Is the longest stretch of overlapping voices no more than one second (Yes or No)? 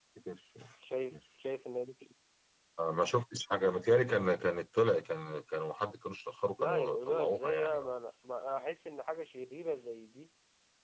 No